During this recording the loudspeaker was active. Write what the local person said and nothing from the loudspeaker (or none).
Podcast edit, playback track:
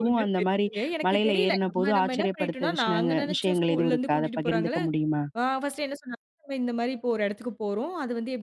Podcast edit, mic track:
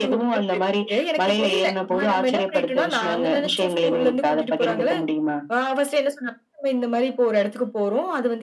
none